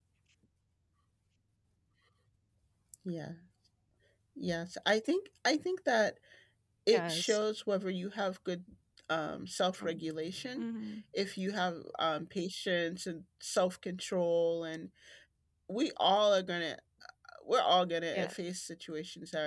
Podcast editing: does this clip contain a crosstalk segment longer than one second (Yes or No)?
No